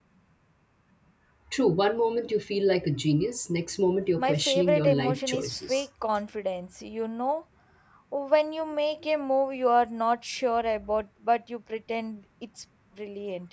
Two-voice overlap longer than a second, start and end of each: 4.2-5.8

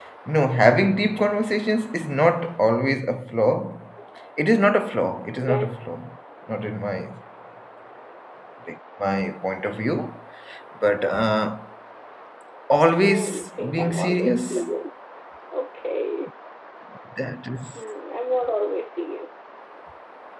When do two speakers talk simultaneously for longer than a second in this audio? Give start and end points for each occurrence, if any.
13.0-14.6

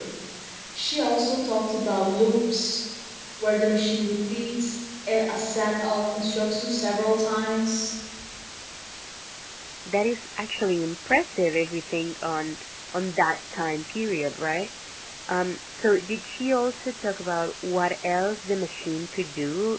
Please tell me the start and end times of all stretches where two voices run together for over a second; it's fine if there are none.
none

